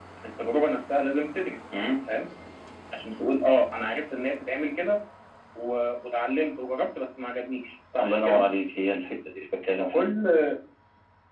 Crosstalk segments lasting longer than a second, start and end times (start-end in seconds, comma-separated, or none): none